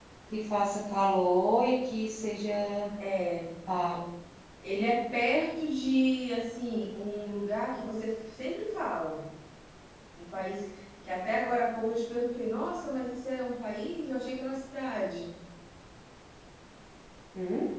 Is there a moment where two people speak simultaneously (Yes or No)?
No